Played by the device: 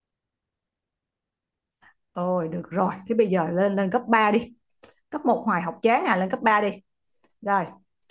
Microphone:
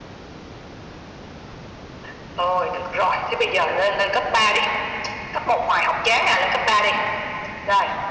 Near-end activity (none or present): none